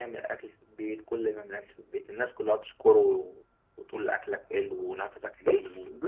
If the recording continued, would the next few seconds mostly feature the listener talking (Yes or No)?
Yes